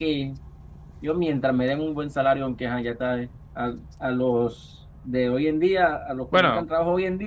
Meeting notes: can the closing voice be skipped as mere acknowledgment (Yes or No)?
Yes